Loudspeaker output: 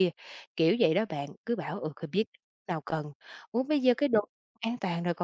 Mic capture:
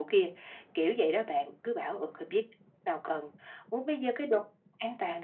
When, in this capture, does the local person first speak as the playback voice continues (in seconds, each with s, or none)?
none